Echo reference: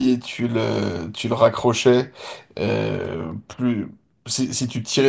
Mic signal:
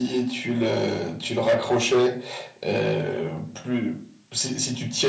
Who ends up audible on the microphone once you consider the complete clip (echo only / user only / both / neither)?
echo only